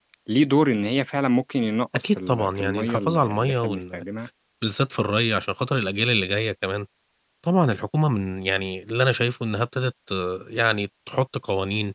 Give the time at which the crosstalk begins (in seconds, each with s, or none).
1.9 s